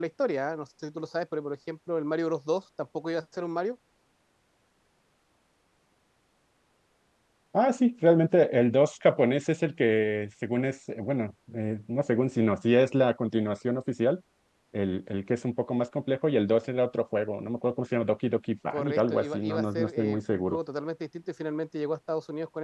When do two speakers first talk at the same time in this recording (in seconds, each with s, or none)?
18.7 s